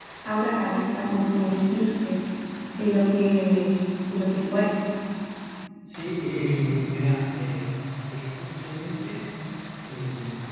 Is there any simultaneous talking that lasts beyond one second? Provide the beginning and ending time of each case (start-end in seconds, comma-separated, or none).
none